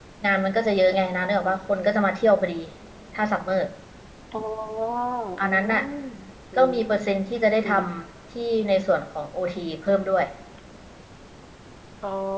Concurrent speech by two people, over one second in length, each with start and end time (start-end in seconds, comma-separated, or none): none